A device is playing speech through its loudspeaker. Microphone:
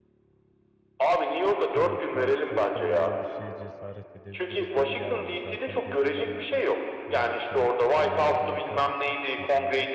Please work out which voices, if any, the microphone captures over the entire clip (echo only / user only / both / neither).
both